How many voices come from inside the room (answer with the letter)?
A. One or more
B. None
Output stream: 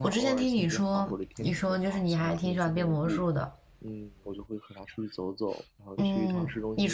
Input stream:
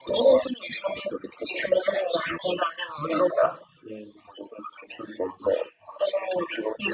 B